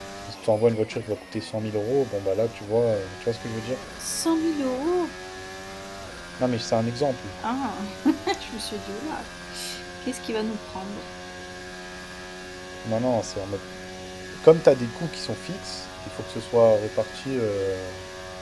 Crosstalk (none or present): none